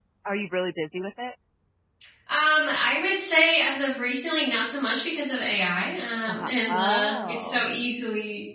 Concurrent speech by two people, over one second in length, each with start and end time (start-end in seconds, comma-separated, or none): 6.3-7.6